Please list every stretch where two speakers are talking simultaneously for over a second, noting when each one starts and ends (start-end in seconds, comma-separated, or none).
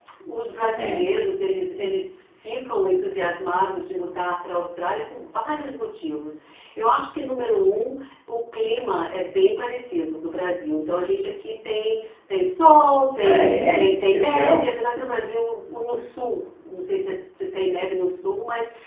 13.2-14.7